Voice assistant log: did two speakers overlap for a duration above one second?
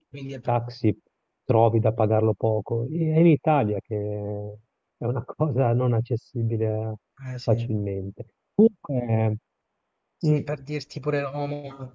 No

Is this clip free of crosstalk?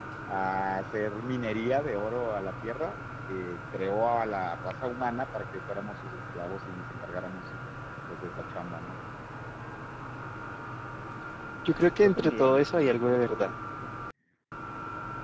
No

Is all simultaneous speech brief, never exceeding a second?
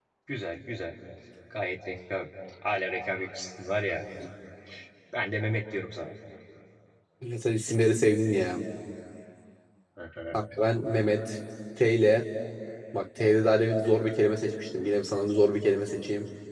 Yes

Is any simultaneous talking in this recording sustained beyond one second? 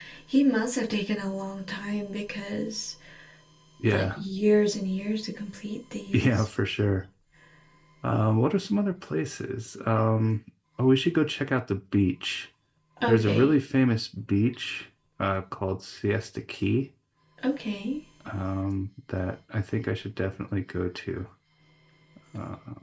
No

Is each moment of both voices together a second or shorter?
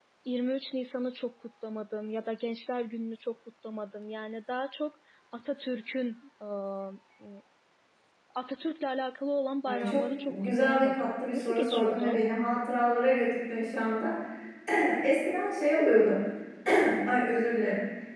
No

